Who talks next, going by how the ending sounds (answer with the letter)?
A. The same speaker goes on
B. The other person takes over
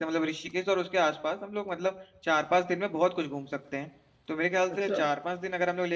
A